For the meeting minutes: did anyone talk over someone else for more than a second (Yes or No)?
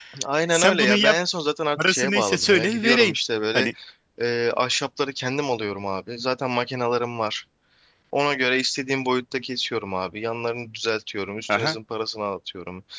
Yes